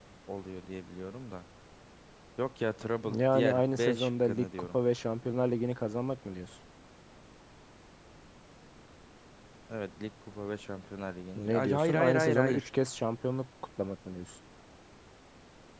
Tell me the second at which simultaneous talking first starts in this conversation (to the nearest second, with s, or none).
3 s